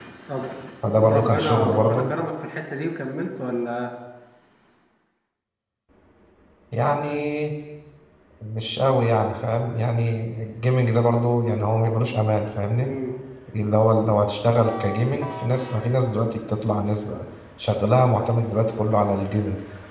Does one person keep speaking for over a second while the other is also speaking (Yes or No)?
Yes